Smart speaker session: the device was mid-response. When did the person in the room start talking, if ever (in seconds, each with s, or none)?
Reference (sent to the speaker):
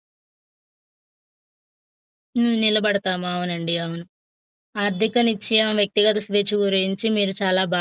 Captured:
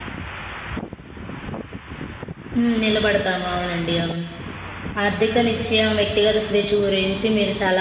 none